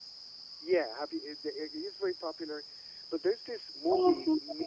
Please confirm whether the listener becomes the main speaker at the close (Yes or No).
Yes